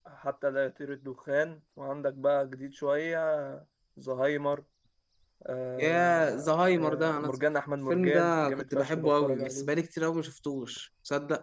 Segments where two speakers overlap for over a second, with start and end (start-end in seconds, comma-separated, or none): 5.8-7.3, 7.9-9.7